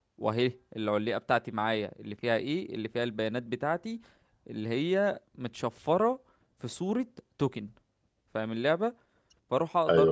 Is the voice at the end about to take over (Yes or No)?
No